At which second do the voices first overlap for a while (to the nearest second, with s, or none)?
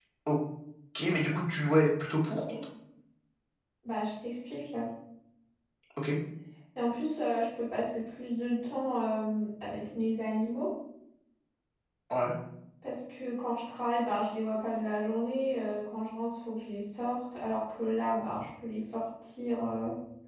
none